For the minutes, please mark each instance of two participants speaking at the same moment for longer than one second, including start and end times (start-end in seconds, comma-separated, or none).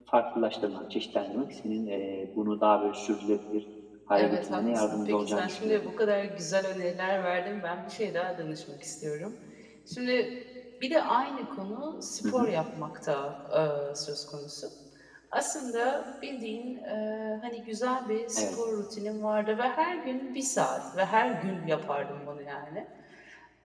4.2-5.9